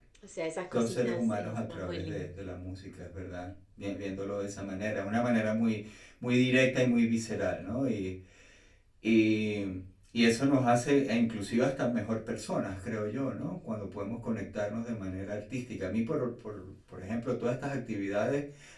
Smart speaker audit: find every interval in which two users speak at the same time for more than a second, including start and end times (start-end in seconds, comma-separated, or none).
0.7-2.2